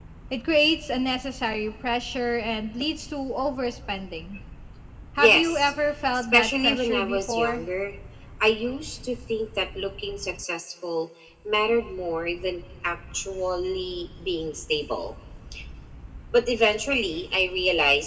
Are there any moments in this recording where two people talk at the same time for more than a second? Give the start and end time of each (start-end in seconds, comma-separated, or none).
6.2-7.6